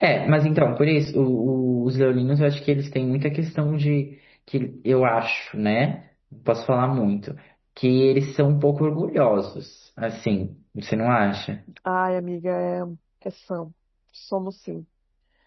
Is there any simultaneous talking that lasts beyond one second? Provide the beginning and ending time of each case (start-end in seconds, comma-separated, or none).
none